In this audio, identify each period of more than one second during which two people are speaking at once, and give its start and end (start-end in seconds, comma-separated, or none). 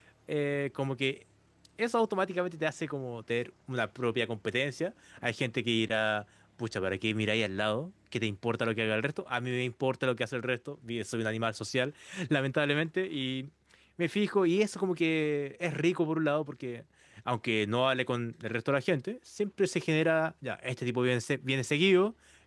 none